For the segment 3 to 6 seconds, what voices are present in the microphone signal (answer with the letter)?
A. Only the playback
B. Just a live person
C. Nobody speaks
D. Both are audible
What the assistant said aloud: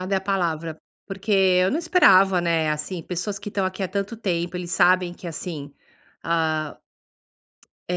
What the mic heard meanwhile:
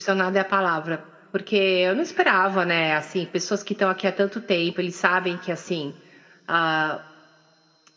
A